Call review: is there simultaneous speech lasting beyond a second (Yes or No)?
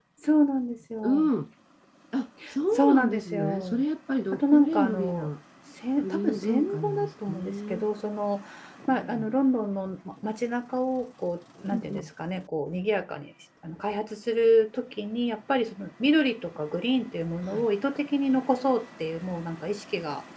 Yes